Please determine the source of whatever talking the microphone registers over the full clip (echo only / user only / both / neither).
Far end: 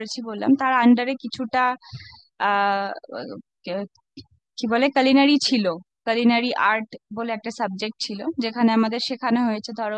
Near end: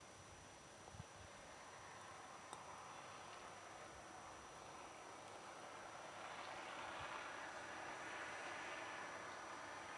neither